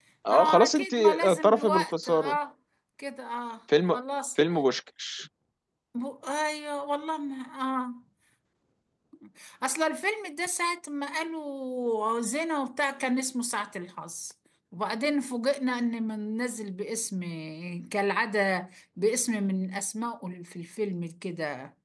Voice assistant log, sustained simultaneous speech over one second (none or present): present